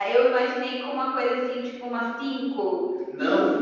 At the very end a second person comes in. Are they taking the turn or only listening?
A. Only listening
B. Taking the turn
B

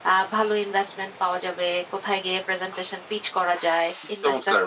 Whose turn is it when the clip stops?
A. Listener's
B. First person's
B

